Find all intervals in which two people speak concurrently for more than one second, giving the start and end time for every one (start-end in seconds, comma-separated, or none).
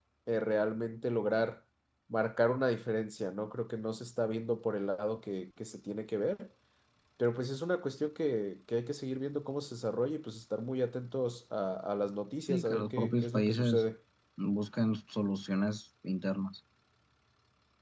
12.5-13.8